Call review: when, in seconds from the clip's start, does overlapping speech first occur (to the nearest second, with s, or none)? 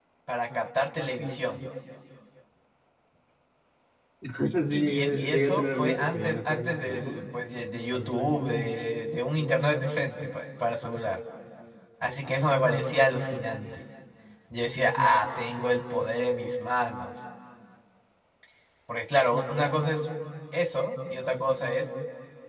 5 s